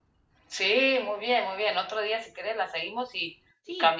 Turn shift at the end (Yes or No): No